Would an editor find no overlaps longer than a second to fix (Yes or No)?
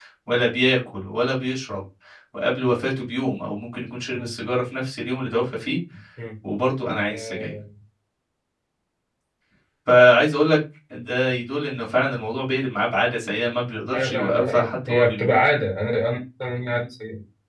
No